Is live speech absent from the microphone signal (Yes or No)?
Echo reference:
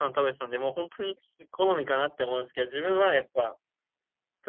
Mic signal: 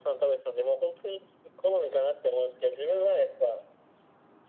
Yes